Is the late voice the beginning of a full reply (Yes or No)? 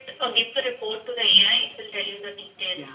Yes